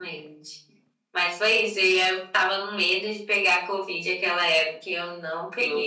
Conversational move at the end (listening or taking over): listening